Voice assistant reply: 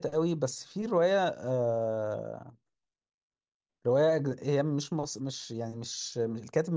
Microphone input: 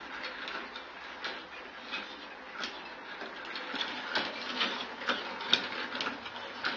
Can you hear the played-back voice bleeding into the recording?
No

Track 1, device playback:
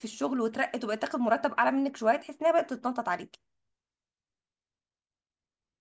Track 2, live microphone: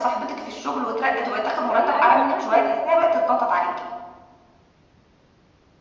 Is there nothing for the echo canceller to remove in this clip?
No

